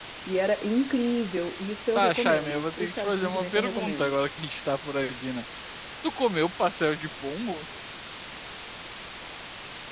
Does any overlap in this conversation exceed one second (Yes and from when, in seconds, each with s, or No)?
Yes, from 2.0 s